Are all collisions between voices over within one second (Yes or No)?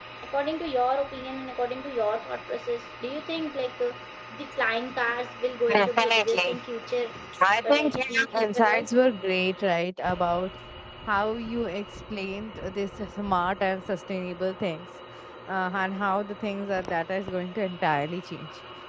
No